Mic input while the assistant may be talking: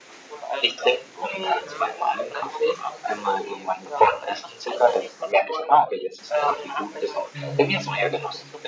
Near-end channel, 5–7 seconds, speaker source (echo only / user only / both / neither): echo only